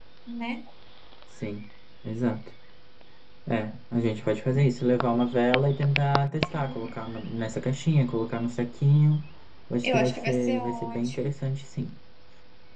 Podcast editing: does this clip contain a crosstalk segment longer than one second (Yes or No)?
Yes